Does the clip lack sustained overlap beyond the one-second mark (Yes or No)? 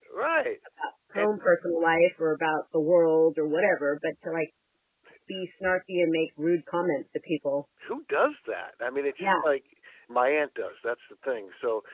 Yes